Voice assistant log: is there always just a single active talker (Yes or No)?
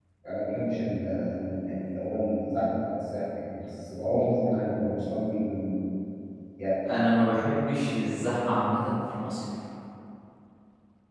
Yes